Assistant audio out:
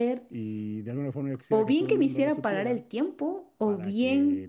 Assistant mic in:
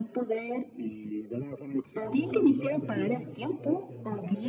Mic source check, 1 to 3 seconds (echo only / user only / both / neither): both